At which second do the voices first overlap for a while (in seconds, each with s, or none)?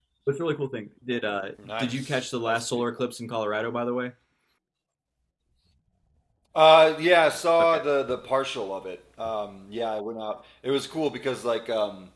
1.6 s